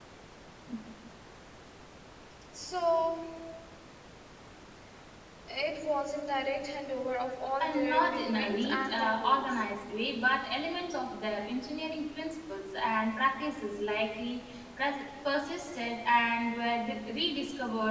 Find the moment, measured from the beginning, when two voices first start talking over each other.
8 s

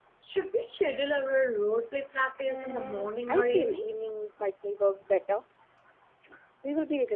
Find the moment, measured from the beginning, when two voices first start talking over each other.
2 s

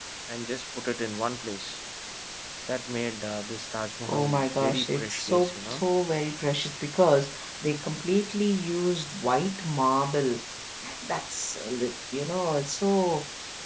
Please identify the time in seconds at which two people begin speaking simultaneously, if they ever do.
4 s

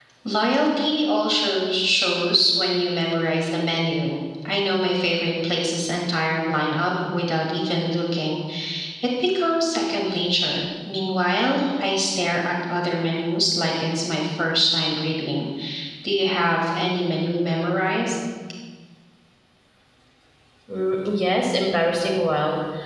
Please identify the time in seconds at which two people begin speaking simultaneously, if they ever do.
none

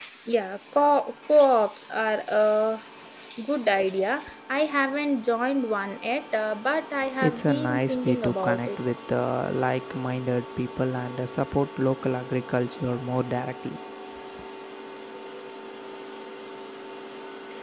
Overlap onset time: 7 s

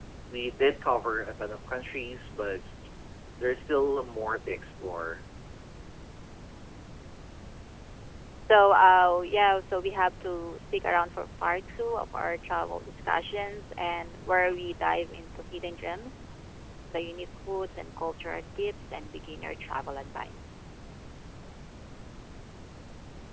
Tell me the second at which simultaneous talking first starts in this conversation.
none

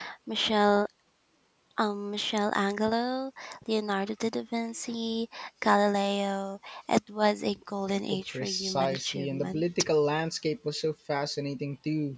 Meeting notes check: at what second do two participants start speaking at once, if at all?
8 s

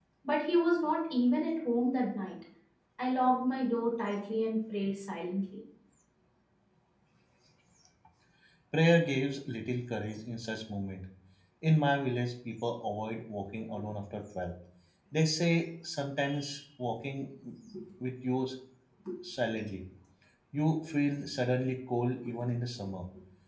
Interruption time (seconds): none

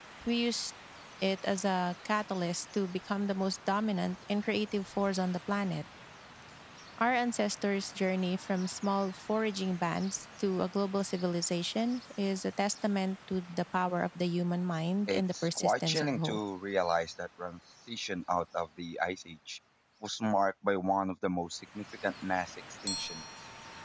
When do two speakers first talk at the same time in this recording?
15 s

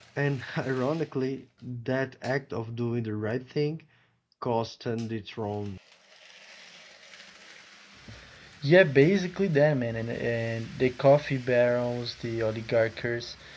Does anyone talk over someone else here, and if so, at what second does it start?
none

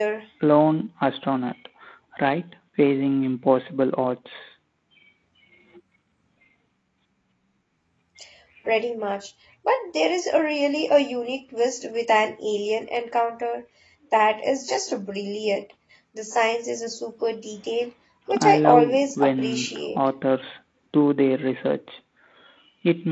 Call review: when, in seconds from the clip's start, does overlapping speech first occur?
18 s

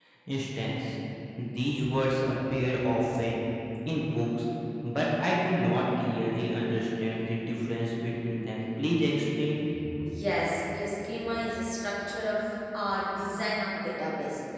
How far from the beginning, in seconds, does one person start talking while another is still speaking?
none

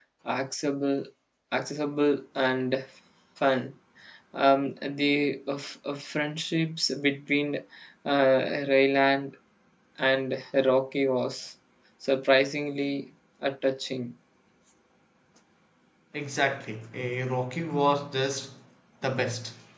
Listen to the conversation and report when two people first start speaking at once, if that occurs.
none

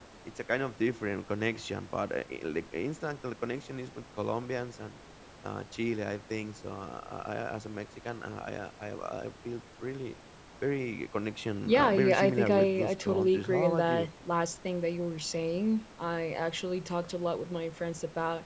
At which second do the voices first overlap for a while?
12 s

